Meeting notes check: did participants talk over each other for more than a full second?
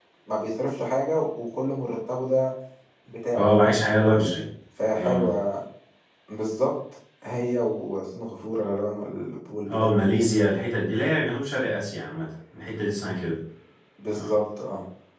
No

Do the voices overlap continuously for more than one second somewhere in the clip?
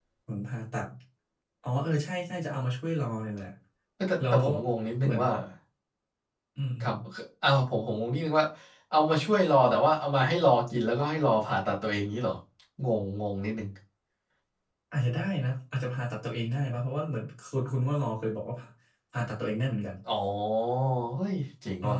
No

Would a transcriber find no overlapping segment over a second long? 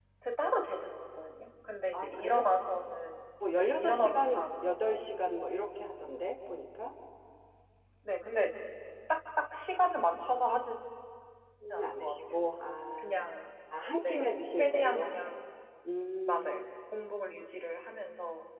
No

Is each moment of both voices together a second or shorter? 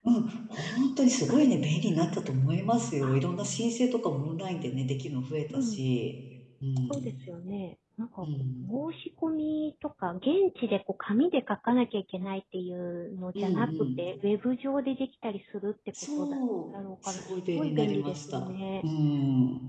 No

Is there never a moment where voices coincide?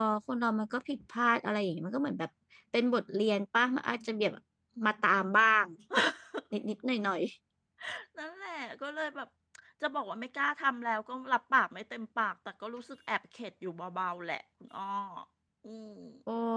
Yes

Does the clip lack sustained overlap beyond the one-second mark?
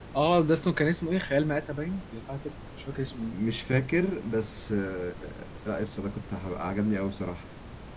Yes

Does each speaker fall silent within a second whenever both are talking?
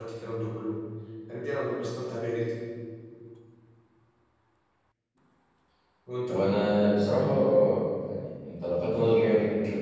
Yes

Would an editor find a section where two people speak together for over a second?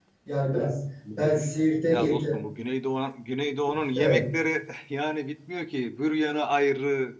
No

